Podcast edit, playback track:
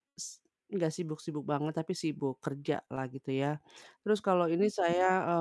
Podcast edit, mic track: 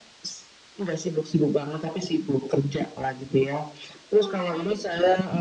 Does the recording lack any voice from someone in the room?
No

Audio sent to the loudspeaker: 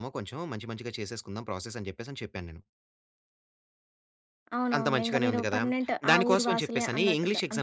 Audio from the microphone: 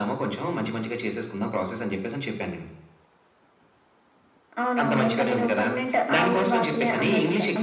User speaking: No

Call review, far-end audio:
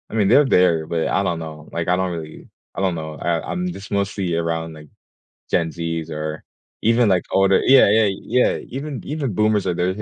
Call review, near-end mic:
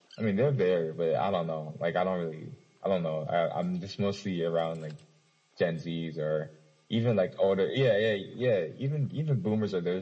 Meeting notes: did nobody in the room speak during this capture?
Yes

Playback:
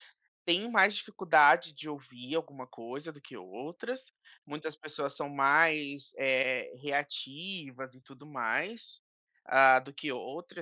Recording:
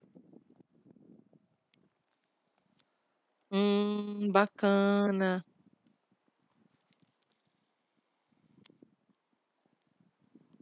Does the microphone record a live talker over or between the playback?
Yes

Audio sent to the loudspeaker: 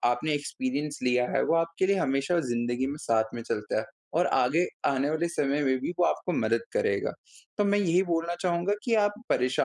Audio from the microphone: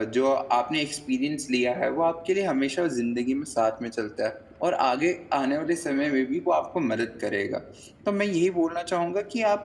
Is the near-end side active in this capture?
No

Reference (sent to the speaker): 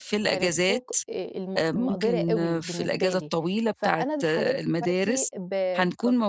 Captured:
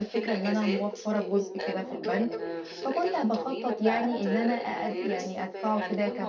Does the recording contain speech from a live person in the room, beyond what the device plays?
Yes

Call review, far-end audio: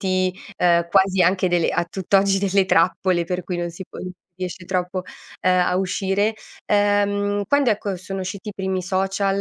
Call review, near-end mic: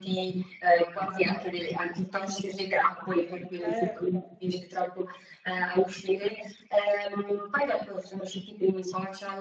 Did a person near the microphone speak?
Yes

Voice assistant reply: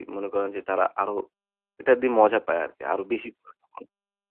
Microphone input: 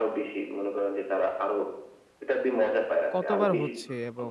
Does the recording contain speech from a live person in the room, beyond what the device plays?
Yes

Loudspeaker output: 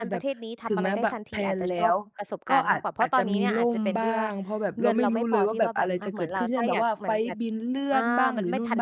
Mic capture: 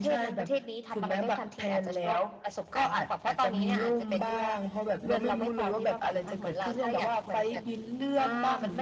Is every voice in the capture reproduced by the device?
Yes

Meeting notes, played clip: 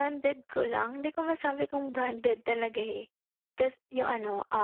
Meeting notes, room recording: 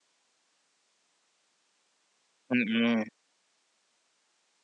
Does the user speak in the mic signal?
Yes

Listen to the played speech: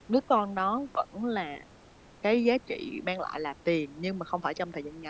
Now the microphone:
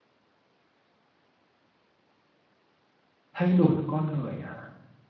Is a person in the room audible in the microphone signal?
Yes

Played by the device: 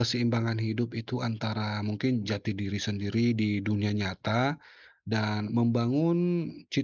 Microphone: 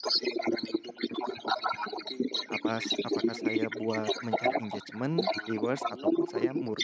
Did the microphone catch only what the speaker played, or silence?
No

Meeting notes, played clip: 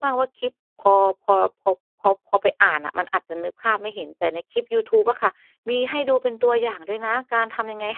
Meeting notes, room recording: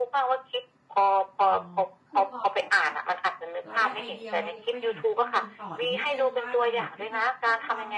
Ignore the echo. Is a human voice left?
Yes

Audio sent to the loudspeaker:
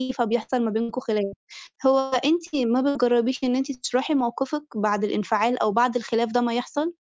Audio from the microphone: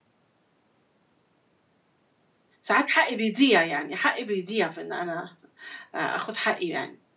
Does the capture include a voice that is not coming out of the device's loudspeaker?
Yes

